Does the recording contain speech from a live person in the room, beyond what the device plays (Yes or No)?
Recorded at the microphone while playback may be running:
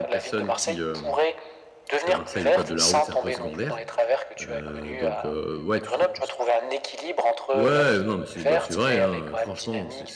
Yes